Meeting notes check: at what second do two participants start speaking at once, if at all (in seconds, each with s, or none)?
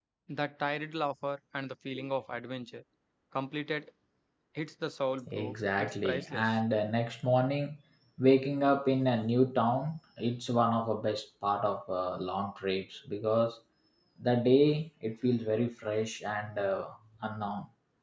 5.3 s